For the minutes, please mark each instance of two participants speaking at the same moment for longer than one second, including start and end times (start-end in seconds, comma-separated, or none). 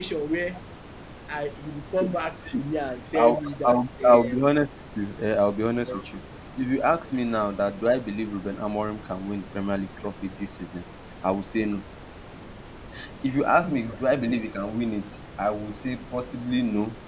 3.1-4.4